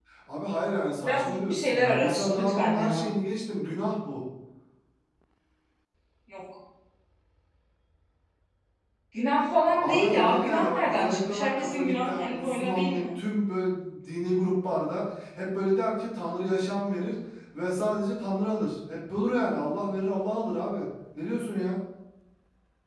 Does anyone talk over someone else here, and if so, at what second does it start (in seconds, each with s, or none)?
1.0 s